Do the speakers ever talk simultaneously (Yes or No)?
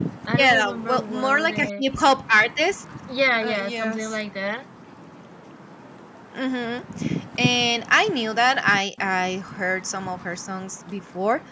Yes